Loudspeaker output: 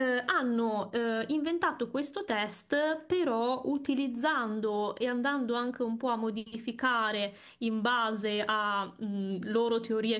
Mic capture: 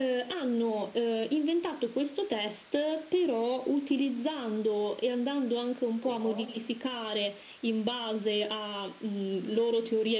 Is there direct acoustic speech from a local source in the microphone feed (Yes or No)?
Yes